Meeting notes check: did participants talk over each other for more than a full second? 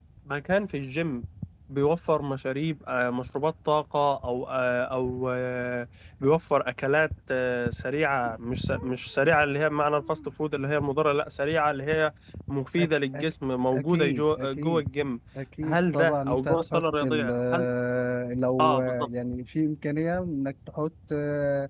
Yes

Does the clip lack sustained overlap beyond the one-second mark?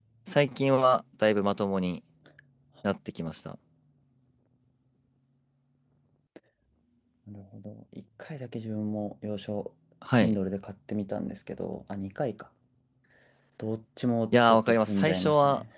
No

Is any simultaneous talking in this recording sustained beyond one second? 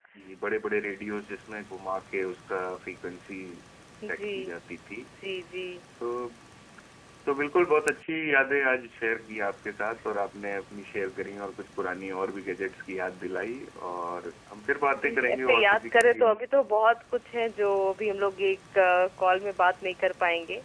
Yes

